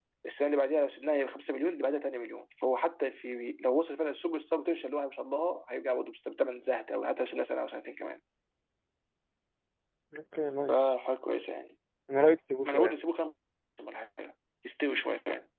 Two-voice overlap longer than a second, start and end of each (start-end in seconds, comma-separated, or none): none